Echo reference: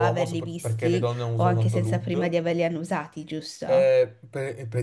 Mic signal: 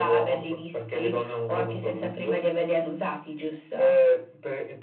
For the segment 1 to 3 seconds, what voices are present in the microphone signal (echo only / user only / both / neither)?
echo only